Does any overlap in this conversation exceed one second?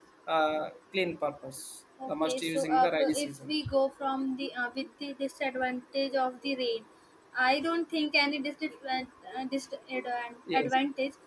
Yes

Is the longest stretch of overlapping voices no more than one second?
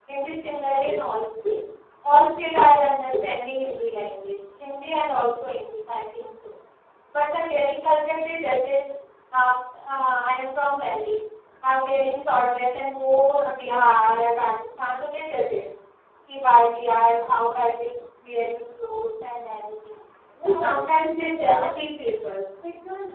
No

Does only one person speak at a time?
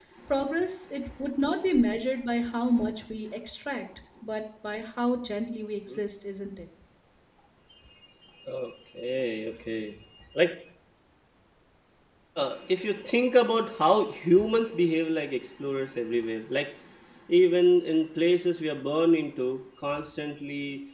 Yes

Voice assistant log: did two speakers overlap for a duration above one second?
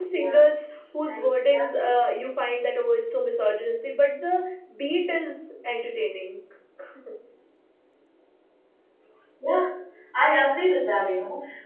No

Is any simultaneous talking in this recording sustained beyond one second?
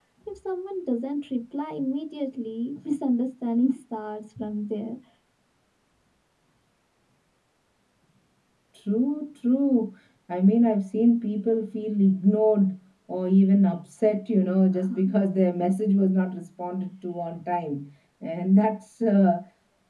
No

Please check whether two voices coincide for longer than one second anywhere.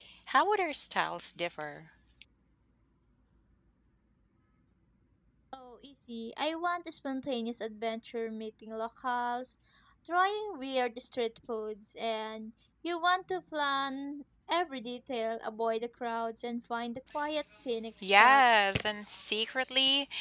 No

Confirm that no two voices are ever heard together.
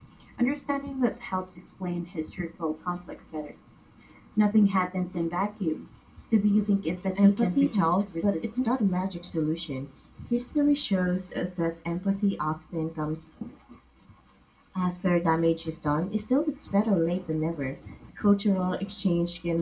No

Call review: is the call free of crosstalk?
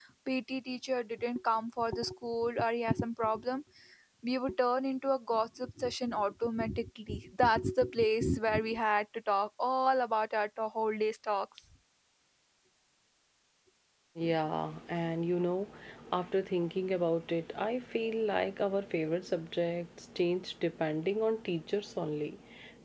Yes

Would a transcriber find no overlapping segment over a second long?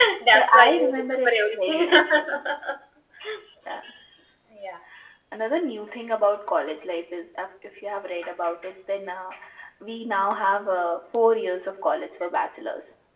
No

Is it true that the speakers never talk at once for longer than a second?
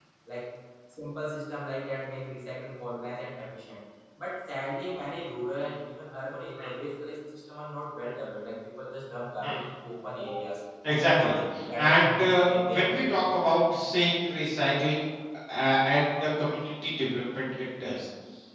No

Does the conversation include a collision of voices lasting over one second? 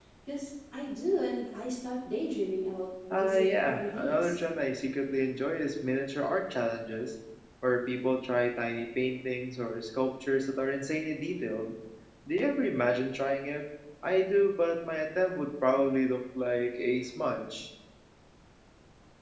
Yes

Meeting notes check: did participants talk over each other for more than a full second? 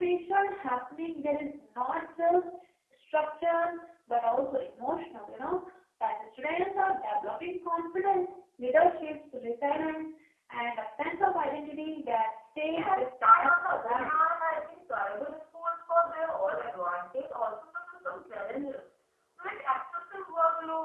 Yes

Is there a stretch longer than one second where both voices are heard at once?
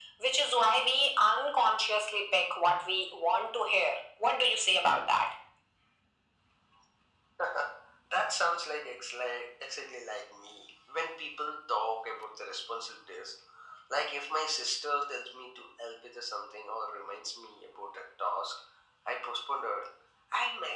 No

